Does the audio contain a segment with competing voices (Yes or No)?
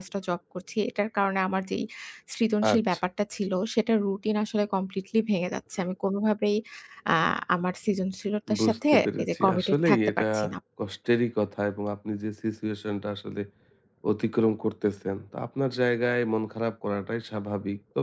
Yes